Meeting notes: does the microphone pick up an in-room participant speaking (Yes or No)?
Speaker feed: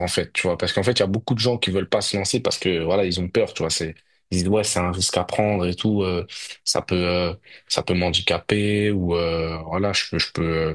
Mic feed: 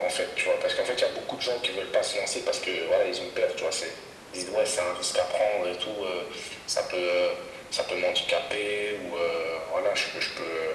No